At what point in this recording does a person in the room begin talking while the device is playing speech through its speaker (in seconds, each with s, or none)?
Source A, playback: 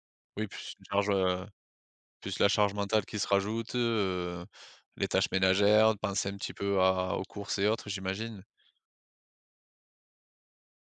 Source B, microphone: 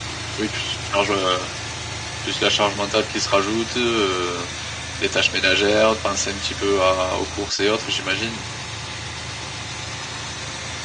none